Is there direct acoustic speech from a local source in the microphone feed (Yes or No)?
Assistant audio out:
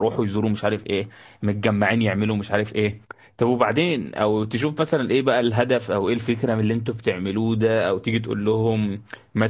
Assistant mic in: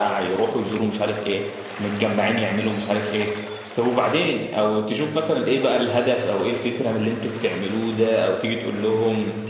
No